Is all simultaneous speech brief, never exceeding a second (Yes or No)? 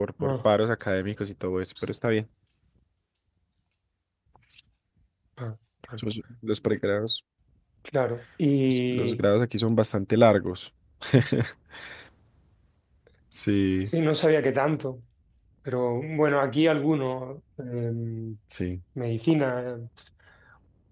Yes